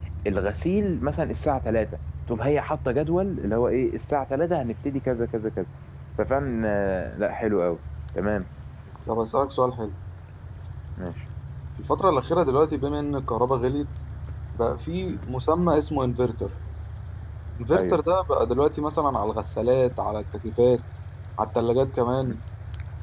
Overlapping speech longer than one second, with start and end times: none

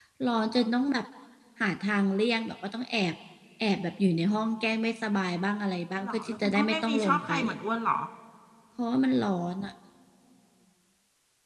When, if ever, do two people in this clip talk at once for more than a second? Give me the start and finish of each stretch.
6.0-7.5

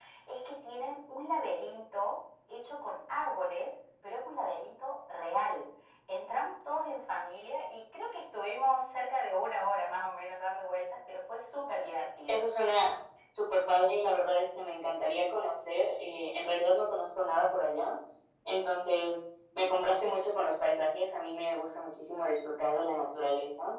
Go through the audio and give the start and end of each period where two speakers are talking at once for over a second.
none

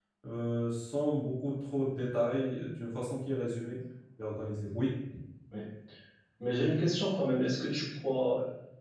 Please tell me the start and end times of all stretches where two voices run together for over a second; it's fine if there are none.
none

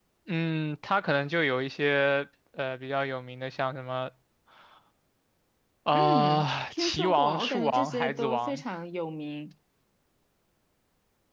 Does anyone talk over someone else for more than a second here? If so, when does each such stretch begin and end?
5.9-8.6

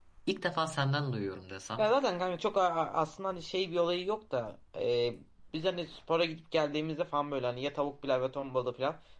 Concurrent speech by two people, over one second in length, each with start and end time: none

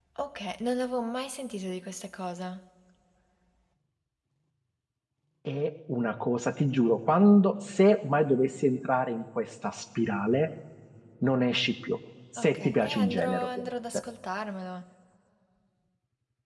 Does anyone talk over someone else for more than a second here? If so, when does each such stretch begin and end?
12.4-14.0

